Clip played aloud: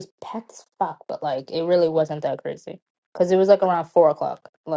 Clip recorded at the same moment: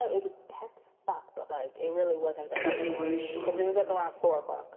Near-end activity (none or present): present